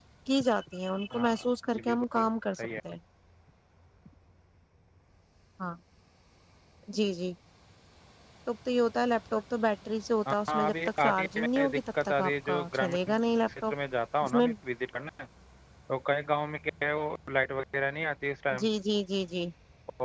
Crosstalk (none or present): present